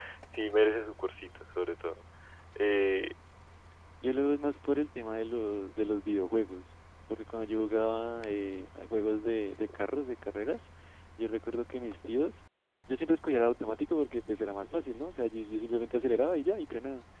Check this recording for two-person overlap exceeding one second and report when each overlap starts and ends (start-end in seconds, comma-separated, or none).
none